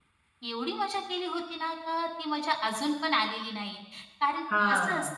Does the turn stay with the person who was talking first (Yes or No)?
Yes